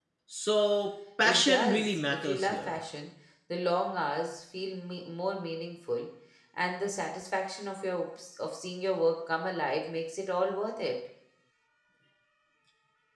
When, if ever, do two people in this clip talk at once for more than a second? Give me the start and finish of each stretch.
1.2-2.8

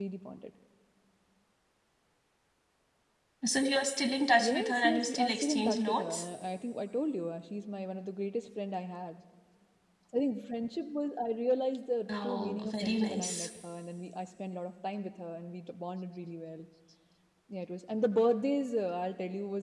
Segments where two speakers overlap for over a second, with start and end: 4.4-6.2, 12.1-13.5

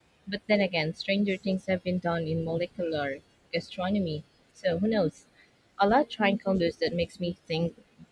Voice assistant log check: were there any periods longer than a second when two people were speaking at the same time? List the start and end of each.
none

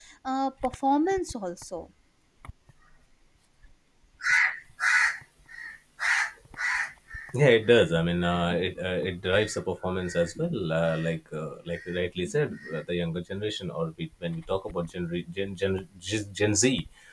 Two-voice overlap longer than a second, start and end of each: none

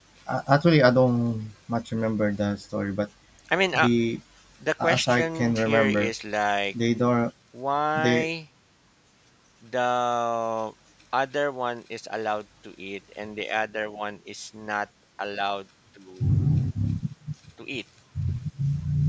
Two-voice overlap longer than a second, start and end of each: 4.8-6.1

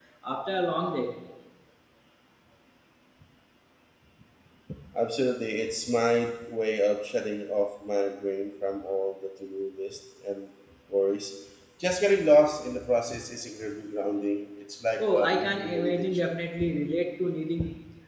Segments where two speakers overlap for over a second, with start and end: 15.0-16.4

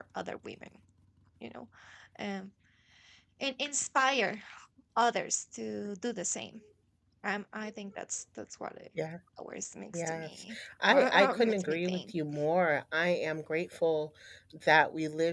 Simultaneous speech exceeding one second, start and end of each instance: 9.9-12.1

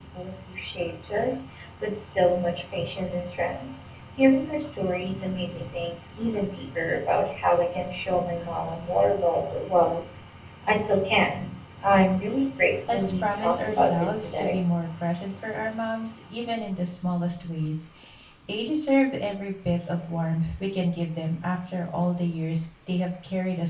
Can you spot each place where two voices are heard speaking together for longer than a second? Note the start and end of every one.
12.9-14.6

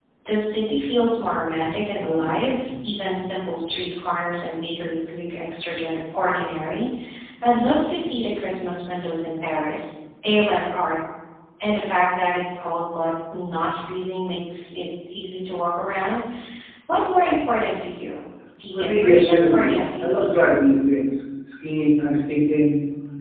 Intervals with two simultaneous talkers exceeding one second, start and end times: 18.7-20.5

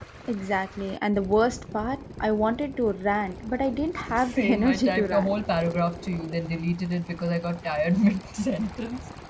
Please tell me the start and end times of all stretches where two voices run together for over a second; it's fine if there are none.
4.2-5.4

